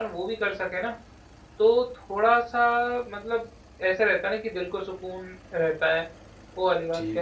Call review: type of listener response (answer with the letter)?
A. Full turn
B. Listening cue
A